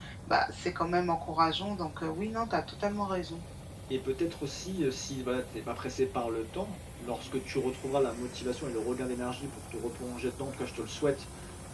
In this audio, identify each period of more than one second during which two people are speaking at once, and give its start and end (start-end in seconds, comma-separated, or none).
none